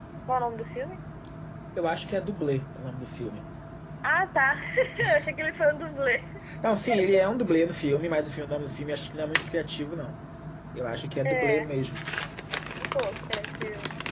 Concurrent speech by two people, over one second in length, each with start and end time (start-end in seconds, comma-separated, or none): none